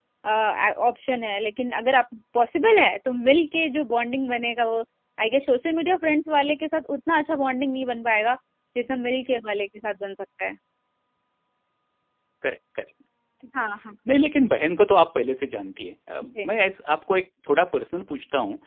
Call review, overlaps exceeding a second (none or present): none